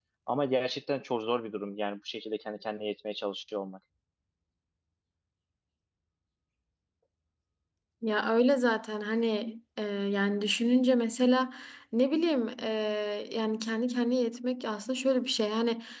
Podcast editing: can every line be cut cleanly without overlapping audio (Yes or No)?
Yes